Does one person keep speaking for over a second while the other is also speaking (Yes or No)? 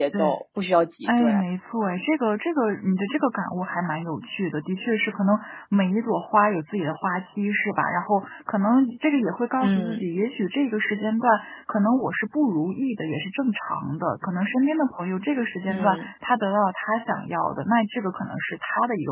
No